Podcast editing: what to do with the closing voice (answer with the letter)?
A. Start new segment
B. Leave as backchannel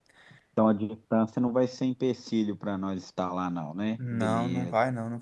A